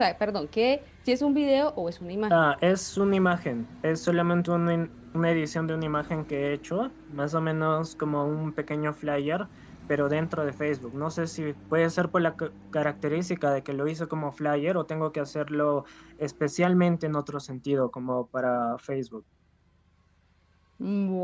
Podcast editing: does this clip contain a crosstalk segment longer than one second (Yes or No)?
No